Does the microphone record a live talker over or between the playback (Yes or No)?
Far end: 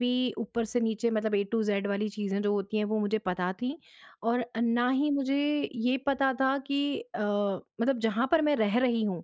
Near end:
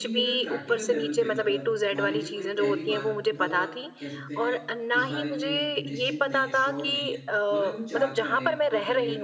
Yes